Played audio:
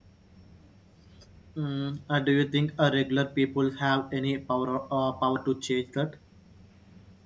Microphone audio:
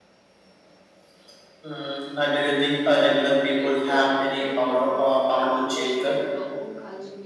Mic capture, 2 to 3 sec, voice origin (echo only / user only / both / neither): echo only